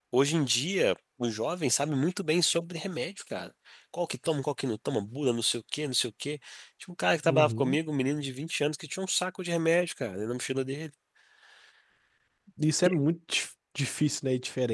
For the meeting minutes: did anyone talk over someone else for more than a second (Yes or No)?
No